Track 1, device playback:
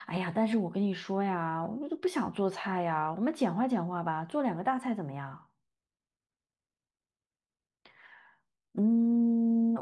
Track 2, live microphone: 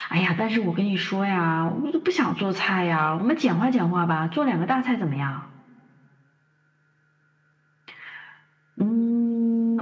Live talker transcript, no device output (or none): none